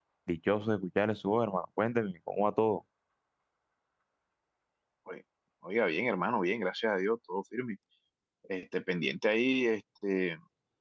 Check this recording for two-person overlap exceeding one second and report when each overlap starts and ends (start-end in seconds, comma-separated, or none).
none